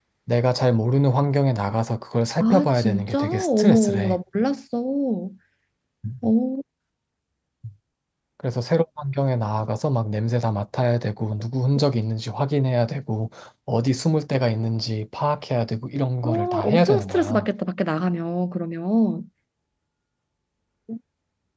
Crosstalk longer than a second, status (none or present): present